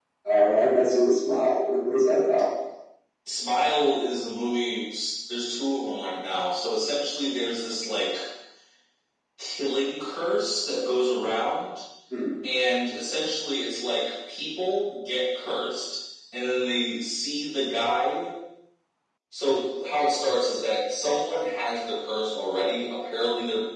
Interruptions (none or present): none